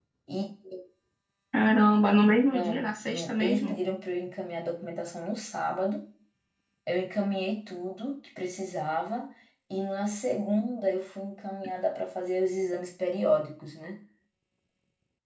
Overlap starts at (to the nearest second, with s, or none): 3 s